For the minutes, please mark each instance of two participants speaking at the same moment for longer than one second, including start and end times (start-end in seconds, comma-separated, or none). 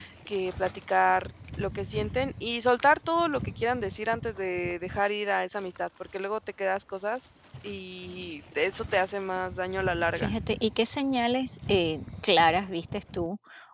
none